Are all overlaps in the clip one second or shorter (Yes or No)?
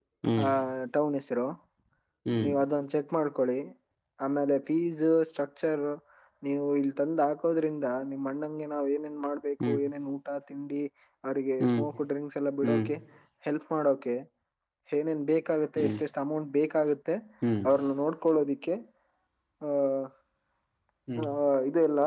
Yes